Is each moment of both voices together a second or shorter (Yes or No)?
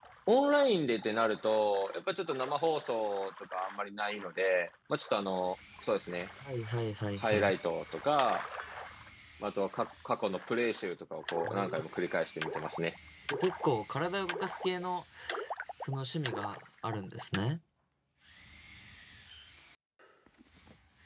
Yes